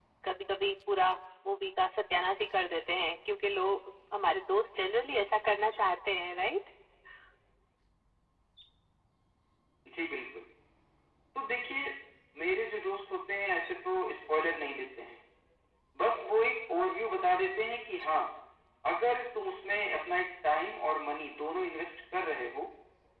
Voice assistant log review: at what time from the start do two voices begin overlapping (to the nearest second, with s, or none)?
none